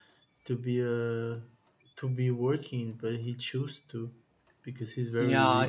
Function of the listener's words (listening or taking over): taking over